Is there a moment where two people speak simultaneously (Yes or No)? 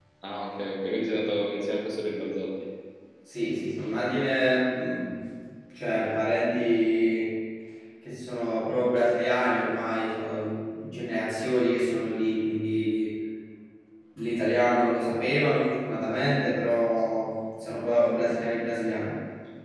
No